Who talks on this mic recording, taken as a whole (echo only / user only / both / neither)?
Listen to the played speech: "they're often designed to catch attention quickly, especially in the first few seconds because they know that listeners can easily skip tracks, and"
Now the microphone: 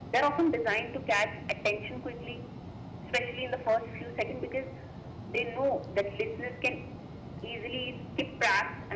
echo only